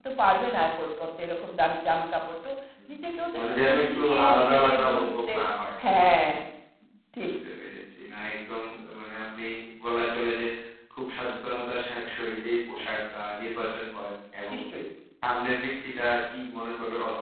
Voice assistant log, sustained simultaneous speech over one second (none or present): present